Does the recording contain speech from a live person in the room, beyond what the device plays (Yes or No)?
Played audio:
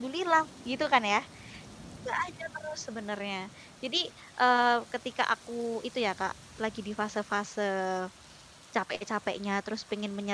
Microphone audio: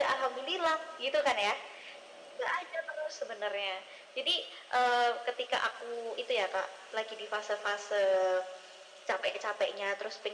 No